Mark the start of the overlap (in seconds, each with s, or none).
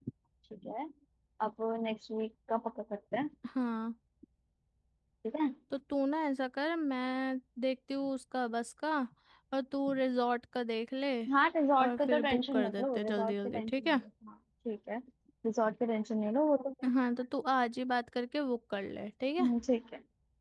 11.8 s